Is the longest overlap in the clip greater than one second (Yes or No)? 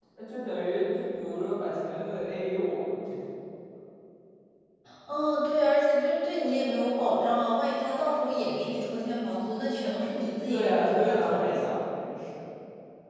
Yes